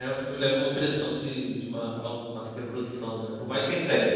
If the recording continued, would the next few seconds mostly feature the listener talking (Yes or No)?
No